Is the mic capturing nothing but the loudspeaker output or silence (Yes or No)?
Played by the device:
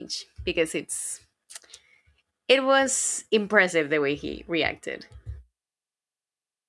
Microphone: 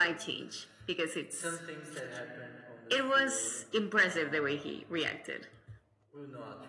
No